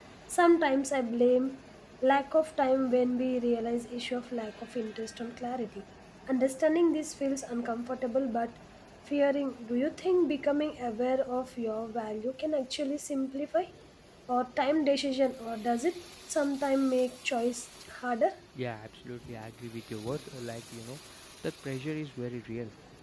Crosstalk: none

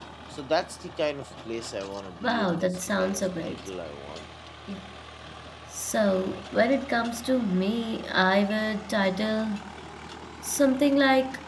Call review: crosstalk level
present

